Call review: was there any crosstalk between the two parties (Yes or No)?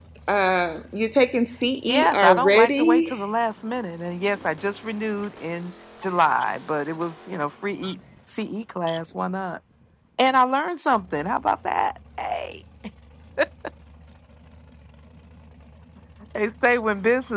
Yes